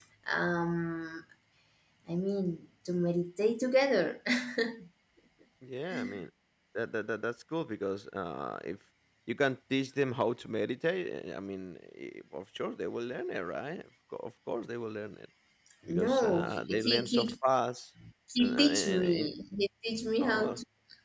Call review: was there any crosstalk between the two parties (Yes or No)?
Yes